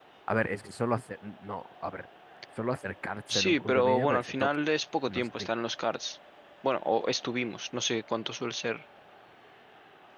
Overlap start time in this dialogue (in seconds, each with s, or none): 3.3 s